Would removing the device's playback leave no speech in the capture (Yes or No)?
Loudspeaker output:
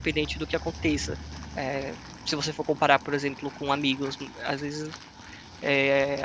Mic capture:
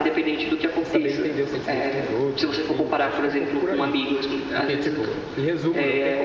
No